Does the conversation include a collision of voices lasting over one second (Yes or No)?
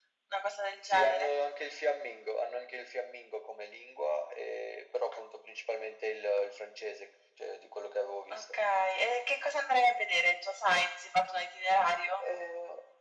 No